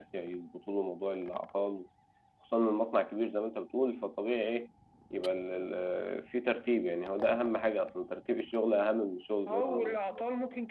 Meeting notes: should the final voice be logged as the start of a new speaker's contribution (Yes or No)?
Yes